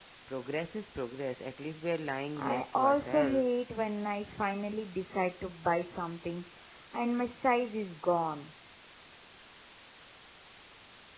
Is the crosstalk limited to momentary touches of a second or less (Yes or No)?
No